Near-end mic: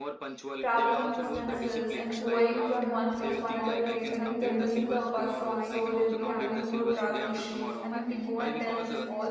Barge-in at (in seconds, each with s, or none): 0.6 s